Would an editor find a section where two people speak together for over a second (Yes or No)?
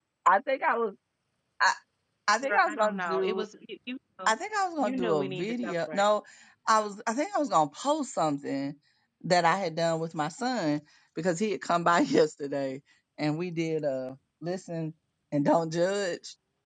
Yes